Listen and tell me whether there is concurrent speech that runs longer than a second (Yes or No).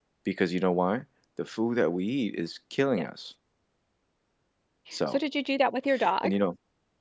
No